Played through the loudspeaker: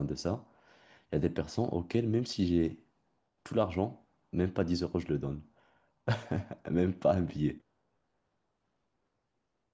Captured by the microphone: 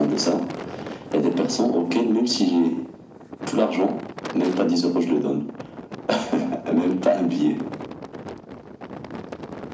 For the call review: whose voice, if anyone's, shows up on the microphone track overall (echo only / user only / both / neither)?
echo only